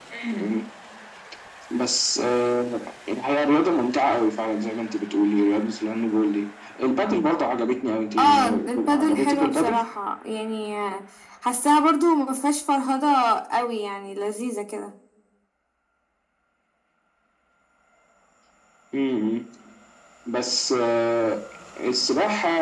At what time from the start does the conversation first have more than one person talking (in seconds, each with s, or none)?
8.2 s